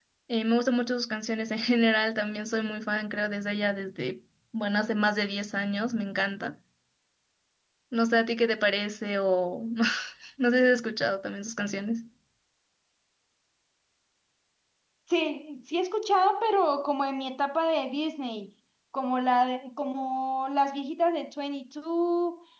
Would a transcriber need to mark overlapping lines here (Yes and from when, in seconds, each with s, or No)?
No